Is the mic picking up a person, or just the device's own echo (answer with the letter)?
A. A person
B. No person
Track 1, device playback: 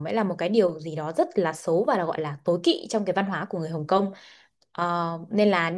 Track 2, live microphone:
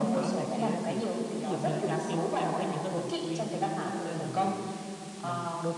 A